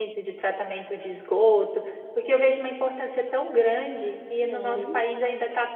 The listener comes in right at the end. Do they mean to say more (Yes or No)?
No